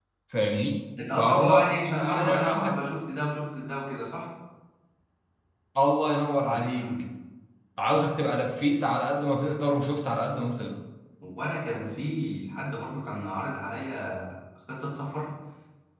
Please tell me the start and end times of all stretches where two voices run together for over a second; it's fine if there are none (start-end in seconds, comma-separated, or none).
1.2-2.8